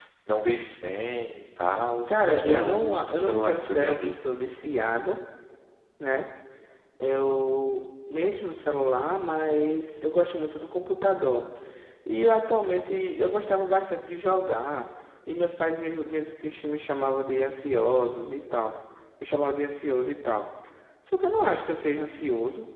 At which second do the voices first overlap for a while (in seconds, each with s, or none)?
2.1 s